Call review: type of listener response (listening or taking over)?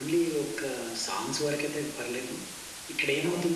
listening